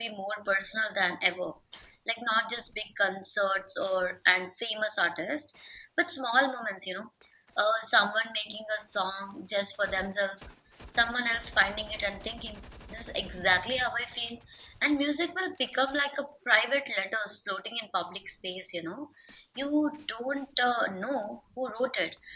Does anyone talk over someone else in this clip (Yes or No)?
No